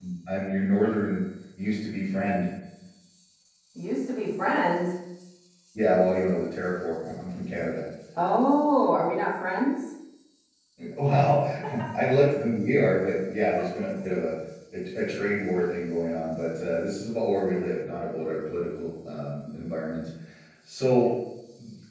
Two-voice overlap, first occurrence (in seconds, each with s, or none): none